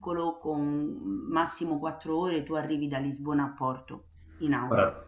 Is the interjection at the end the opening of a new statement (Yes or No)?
Yes